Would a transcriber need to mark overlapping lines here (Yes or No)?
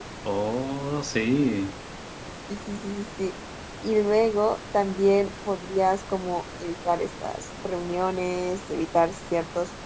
No